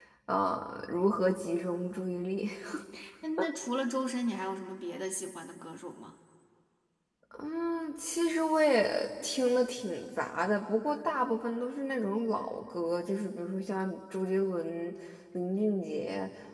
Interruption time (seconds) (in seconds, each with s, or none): none